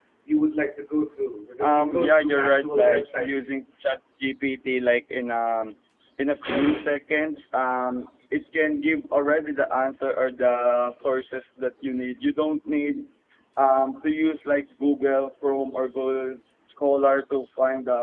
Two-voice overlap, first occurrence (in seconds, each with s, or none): 1.6 s